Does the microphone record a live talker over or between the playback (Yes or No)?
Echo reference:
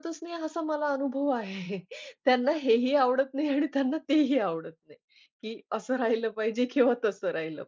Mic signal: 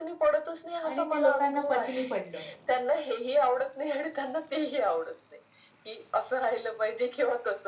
Yes